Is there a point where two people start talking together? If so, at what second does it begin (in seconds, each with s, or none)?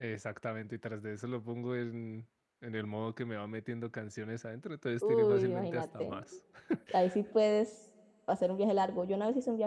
5.0 s